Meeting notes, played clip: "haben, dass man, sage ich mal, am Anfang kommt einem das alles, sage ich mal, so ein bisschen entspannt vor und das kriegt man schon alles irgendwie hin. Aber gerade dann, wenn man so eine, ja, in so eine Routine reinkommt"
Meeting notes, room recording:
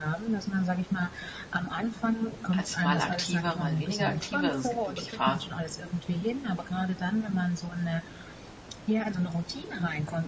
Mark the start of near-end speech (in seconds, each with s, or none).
2.5 s